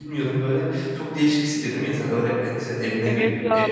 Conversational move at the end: taking over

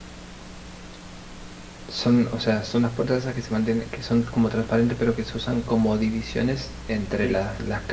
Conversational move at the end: listening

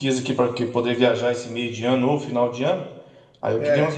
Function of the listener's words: listening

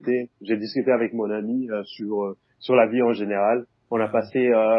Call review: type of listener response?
listening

